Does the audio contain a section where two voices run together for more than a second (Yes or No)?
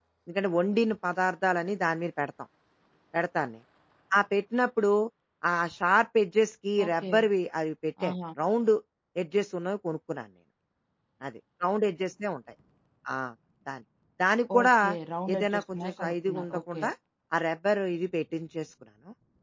Yes